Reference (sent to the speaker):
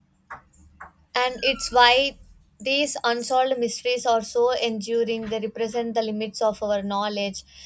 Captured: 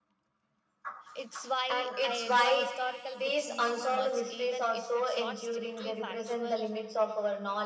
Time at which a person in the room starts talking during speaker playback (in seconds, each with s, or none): 1.1 s